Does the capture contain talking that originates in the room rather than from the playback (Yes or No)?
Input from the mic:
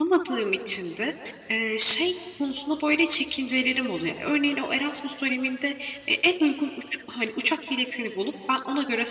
Yes